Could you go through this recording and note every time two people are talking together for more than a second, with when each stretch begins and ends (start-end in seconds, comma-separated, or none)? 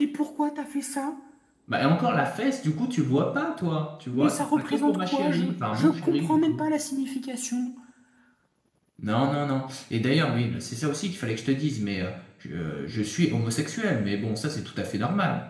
4.1-6.6